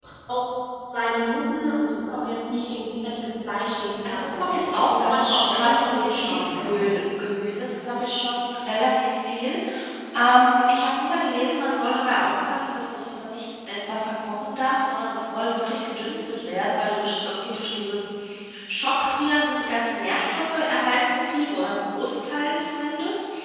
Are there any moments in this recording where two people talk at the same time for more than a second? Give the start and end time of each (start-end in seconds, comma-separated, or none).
4.0-6.8